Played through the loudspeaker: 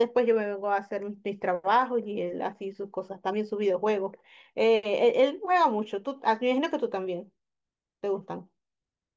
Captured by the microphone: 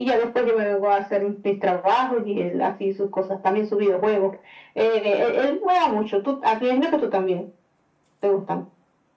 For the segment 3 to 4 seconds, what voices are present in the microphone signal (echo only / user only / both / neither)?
echo only